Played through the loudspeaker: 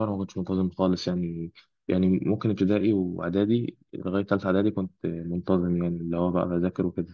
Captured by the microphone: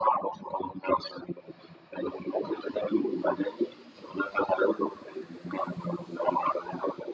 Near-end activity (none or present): none